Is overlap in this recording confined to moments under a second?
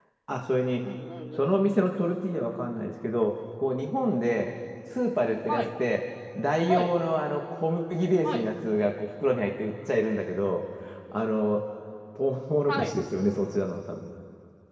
Yes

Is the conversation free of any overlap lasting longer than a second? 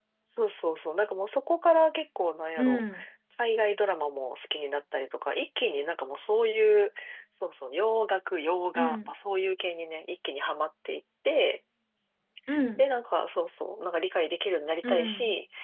Yes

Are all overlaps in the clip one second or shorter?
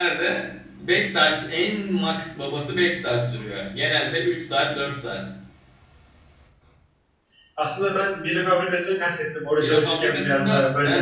No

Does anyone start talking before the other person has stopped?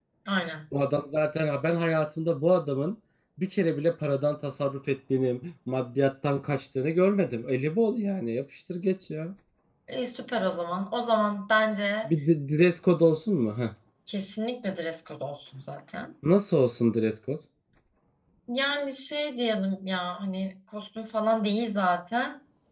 No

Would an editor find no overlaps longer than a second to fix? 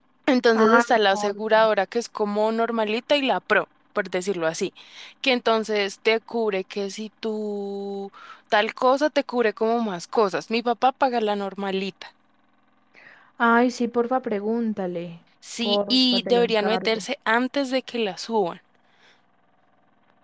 No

